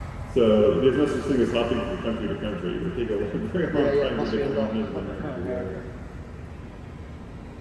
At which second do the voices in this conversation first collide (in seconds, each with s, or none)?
3.7 s